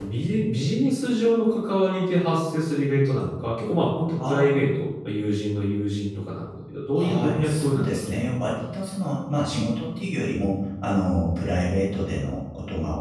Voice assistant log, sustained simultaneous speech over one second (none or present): present